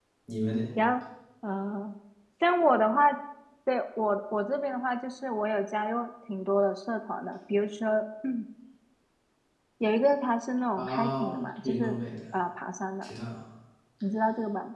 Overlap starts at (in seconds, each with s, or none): 10.8 s